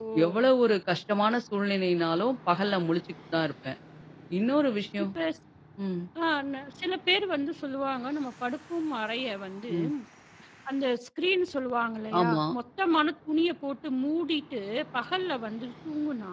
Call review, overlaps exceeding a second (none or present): none